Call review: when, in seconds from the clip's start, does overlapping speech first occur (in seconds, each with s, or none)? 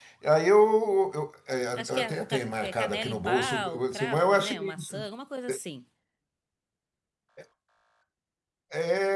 1.8 s